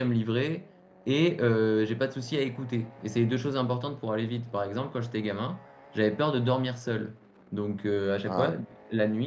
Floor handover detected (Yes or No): No